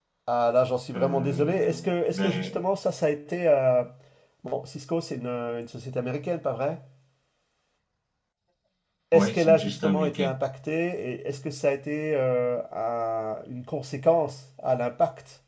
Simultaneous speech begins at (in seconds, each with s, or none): 0.9 s